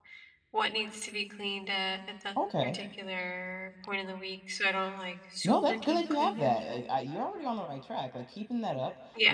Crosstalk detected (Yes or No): Yes